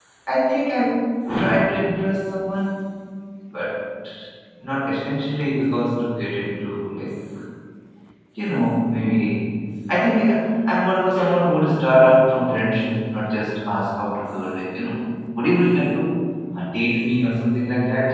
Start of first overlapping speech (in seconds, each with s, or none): none